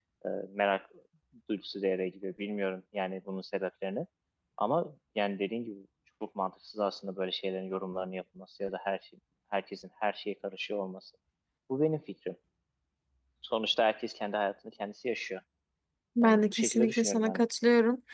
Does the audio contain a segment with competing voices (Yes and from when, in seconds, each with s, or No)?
Yes, from 16.2 s